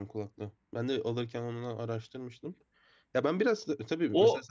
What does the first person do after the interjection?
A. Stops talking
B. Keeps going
B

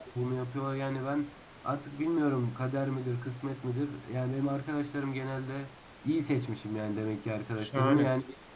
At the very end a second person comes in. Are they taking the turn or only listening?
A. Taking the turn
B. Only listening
B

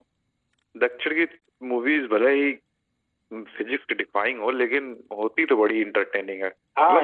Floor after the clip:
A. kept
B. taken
B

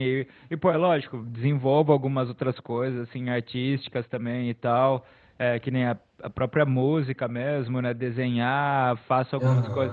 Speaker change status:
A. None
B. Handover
A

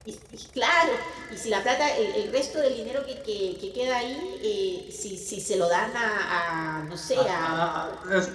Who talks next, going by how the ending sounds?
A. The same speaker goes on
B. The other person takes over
B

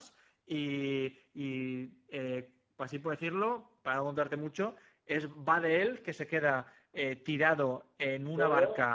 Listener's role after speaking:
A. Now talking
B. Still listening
B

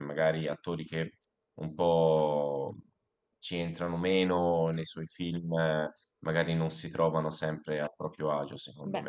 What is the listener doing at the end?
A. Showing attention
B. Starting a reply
B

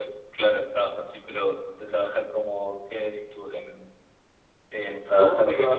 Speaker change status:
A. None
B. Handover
B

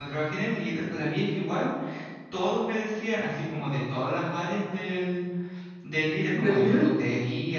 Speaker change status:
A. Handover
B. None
B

